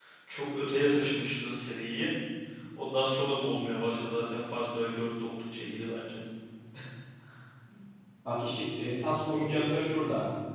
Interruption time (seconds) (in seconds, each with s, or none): none